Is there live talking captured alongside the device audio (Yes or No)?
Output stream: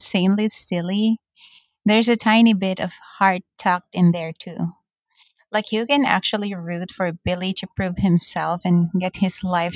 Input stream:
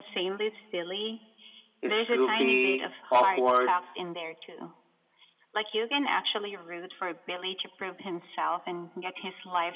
Yes